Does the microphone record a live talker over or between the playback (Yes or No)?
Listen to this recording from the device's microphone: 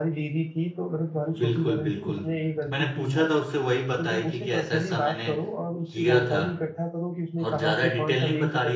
Yes